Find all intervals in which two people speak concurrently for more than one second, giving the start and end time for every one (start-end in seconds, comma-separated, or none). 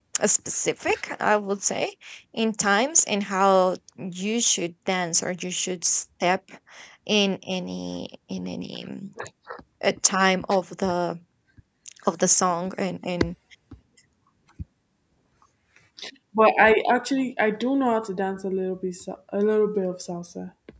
none